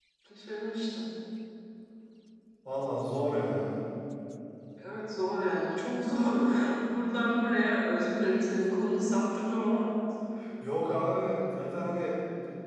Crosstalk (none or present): none